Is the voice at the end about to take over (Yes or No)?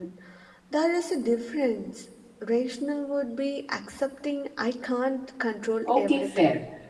Yes